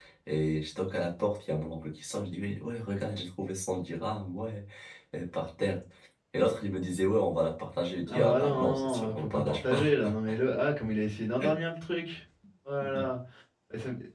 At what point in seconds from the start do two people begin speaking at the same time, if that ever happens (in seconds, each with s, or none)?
8.1 s